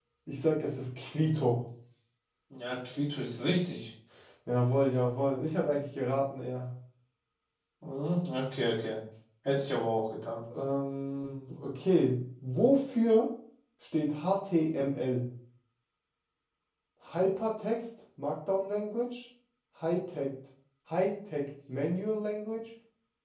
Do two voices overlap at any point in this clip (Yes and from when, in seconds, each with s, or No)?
No